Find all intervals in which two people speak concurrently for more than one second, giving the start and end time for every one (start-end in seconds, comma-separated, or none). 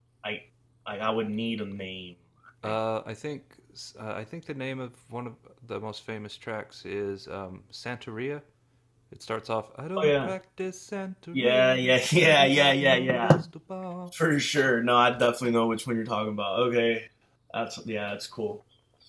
12.2-13.4